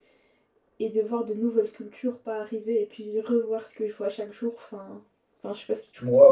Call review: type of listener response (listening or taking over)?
taking over